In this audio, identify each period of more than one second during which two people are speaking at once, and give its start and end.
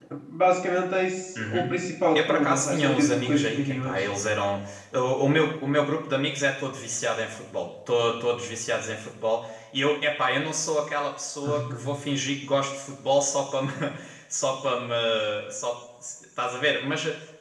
2.1-4.0

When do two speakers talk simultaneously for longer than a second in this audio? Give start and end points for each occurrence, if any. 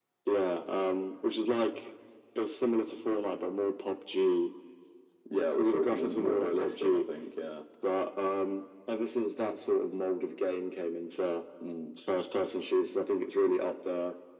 5.6-7.0

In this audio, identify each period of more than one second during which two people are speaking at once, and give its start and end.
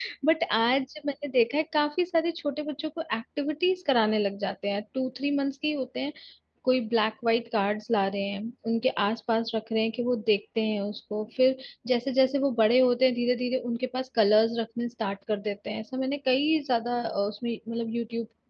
none

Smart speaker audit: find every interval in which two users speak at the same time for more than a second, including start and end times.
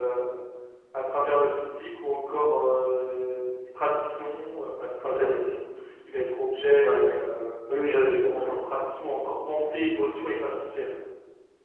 none

